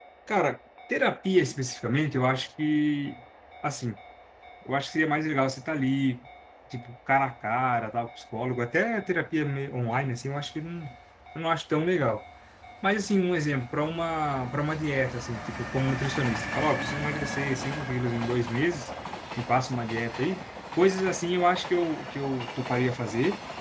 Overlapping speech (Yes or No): No